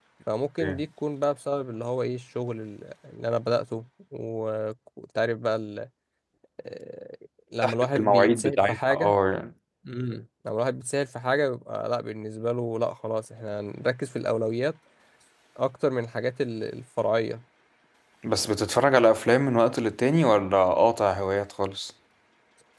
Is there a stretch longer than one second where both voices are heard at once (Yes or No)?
Yes